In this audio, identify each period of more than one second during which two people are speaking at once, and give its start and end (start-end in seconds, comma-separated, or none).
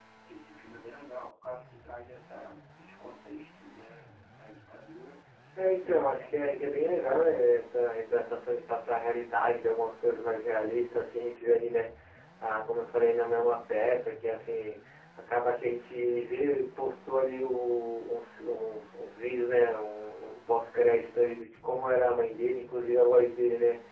5.8-7.5